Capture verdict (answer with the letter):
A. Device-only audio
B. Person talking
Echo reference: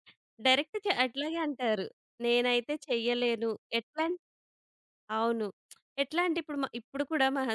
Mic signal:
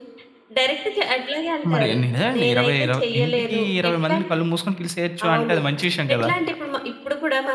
B